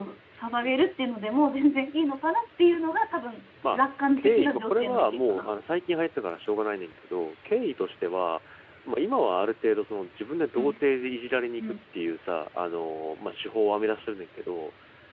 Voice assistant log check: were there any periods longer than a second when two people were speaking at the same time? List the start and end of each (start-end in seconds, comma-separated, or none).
4.2-5.5